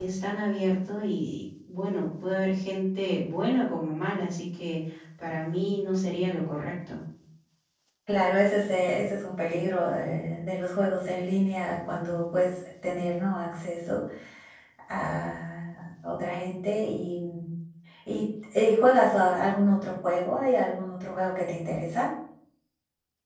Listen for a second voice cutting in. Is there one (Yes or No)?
No